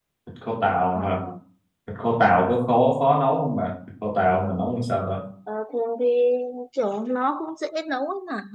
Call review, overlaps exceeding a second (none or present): none